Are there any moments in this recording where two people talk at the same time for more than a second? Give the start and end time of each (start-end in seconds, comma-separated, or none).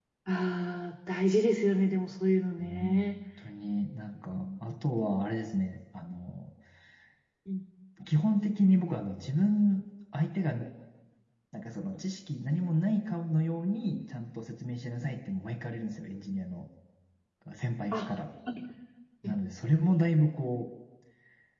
none